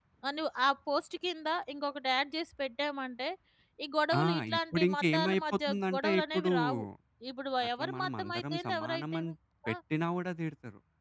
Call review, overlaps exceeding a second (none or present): present